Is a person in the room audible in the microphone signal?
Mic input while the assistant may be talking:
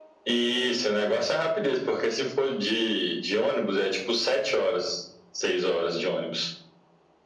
No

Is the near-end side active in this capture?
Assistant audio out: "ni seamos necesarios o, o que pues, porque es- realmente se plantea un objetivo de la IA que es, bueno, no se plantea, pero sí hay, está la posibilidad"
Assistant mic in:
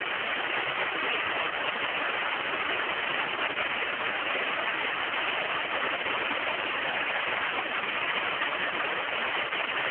No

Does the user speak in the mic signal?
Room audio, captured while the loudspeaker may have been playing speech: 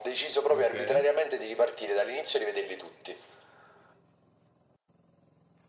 Yes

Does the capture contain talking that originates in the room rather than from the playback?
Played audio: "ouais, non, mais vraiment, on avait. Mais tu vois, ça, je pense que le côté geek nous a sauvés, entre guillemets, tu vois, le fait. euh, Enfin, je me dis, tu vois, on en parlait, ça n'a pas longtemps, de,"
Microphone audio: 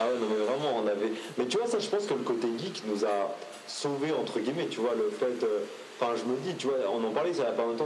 No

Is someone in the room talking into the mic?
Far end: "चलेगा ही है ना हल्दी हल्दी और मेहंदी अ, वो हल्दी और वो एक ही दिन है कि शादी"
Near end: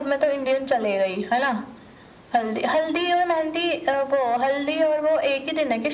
No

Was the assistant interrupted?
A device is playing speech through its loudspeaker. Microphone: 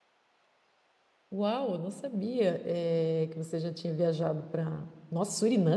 Yes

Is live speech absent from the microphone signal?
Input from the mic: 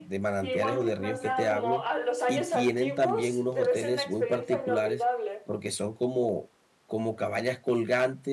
No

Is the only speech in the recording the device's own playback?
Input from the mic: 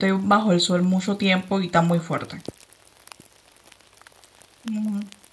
No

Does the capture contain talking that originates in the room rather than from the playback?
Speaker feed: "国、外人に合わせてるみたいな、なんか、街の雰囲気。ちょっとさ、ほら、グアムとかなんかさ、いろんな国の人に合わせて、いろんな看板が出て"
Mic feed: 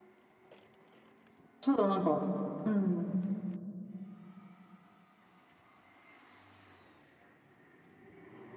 Yes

